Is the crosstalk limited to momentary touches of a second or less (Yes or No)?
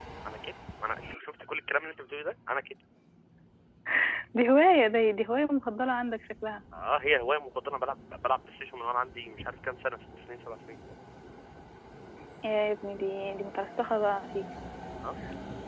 Yes